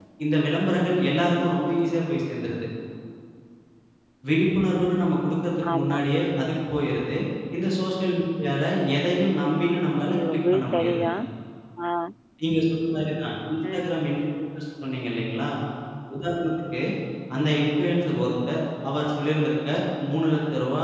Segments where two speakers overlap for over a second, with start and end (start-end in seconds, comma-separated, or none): 9.5-11.1